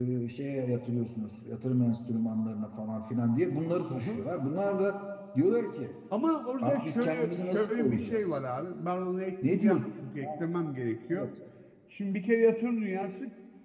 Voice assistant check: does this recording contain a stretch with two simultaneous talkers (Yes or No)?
Yes